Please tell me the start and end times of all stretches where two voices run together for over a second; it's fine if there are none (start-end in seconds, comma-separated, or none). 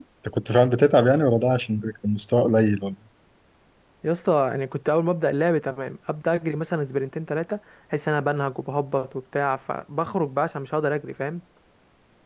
none